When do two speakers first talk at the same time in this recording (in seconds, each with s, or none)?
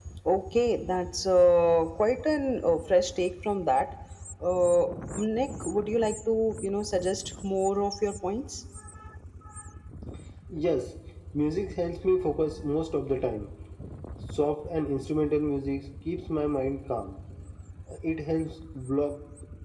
none